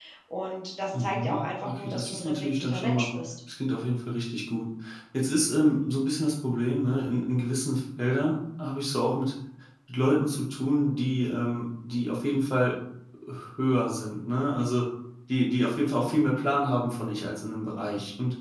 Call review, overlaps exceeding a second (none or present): present